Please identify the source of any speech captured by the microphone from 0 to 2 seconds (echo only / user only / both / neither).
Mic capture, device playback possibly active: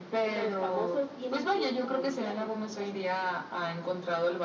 echo only